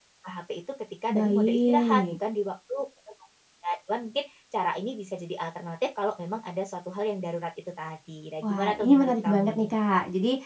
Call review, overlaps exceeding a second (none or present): present